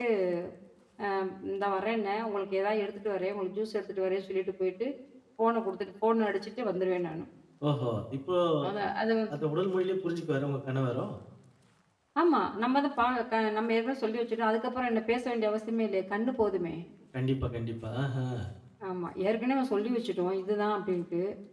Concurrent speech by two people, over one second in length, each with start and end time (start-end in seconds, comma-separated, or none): none